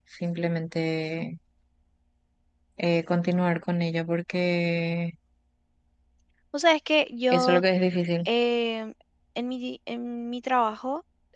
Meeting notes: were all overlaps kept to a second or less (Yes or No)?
Yes